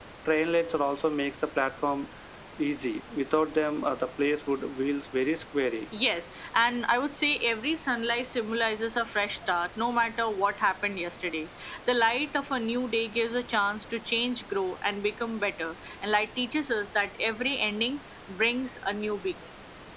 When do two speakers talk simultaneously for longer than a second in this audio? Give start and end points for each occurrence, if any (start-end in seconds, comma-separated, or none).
none